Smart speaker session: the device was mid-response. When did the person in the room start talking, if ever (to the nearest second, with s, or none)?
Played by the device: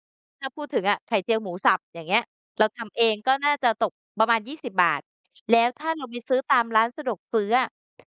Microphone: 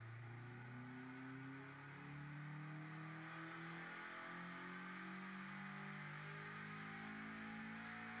none